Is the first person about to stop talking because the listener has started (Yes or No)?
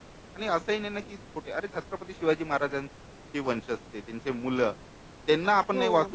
No